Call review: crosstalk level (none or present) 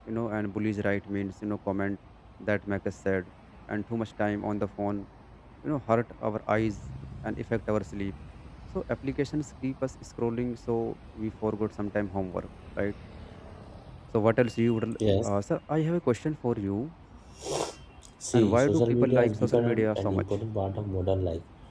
present